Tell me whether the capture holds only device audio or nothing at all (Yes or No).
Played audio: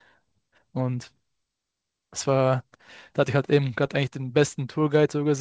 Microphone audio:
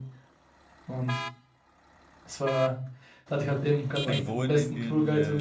No